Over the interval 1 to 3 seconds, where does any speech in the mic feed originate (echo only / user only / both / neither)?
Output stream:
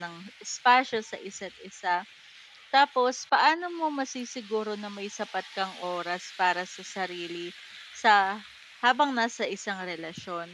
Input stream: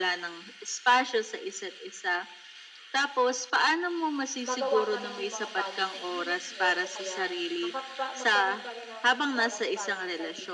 echo only